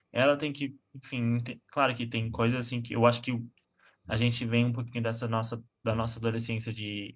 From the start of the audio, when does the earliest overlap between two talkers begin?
none

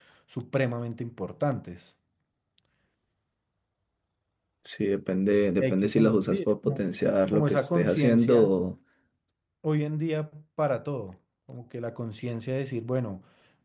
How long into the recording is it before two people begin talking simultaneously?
6 s

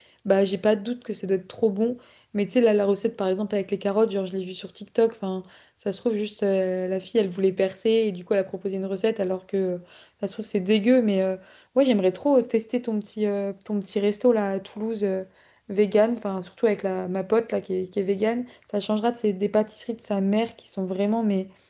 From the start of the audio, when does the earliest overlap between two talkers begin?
none

